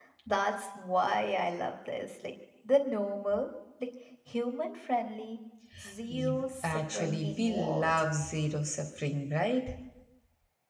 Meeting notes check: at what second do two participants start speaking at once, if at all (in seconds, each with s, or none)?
6.1 s